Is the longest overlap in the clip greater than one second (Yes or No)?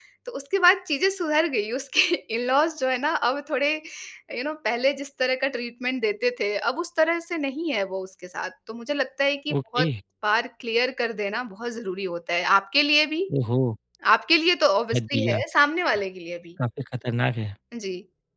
No